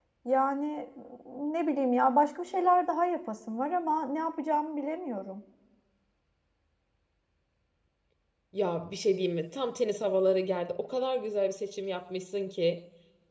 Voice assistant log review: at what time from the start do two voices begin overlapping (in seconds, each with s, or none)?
none